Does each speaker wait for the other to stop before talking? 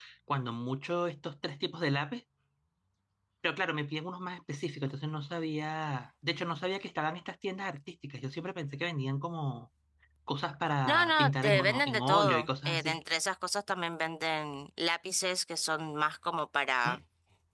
No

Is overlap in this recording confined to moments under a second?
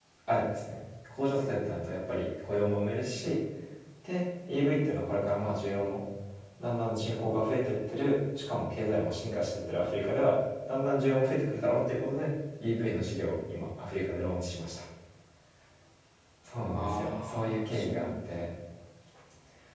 No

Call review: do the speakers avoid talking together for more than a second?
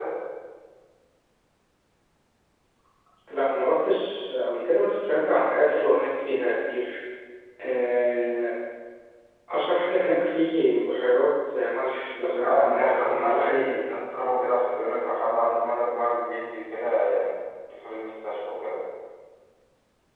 No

